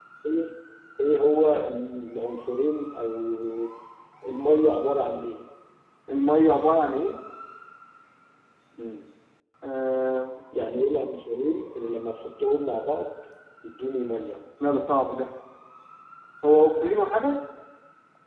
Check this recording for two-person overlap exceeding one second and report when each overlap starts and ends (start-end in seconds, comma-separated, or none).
none